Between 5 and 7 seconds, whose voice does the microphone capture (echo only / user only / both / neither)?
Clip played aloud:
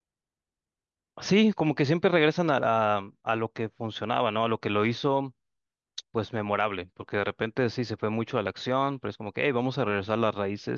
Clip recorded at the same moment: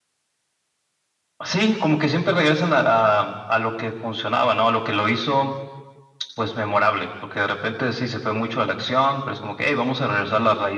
echo only